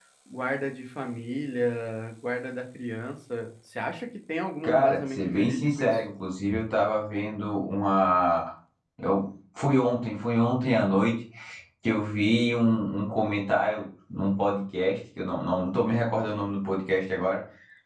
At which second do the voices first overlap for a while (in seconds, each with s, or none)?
4.6 s